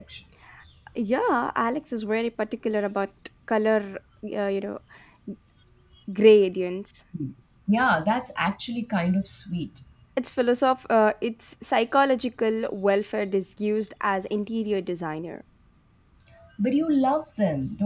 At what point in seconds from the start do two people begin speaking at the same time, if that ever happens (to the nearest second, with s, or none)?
none